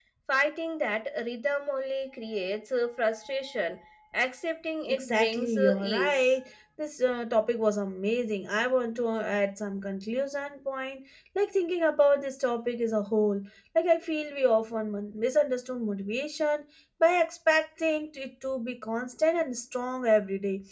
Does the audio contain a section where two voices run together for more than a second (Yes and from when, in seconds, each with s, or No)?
Yes, from 4.9 s